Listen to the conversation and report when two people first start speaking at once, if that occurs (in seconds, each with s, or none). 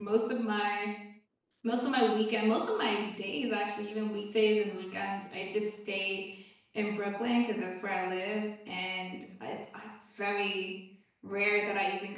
none